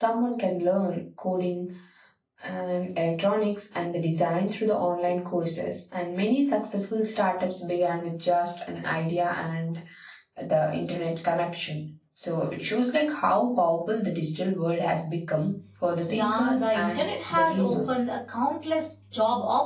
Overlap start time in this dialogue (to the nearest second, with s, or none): 16 s